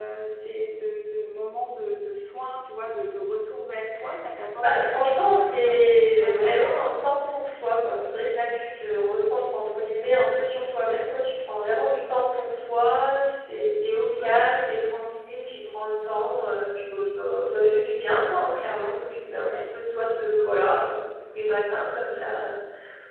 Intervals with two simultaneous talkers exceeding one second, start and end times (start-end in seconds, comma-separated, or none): 4.6-6.5